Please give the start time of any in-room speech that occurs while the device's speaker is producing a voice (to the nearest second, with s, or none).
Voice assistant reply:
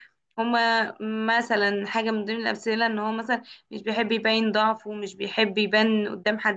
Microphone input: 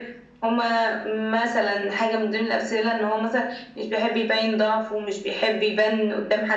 none